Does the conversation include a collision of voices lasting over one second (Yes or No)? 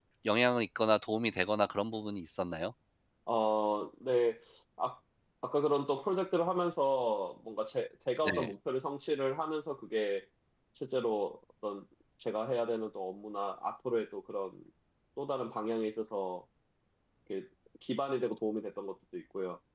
No